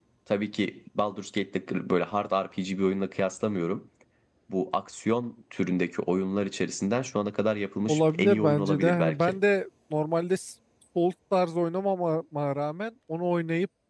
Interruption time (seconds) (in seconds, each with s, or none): 7.9 s